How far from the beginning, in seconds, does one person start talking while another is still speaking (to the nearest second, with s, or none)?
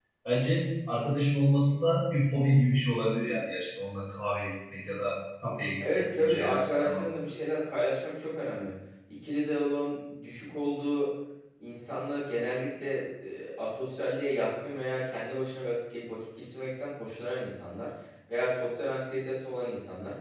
6 s